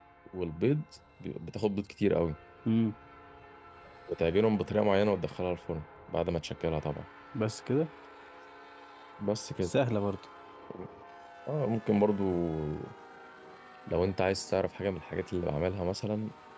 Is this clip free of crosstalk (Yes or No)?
Yes